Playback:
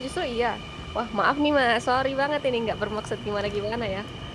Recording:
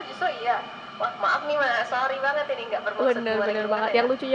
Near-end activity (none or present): present